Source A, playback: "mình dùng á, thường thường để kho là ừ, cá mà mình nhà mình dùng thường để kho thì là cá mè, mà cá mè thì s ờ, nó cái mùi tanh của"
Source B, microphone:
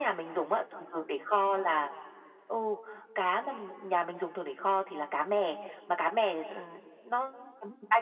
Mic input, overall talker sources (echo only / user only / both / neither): echo only